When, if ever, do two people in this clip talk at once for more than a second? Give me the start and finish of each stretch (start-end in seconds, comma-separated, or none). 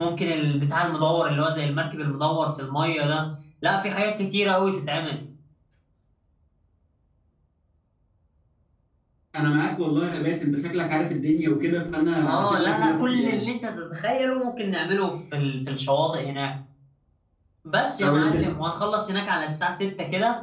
12.2-13.4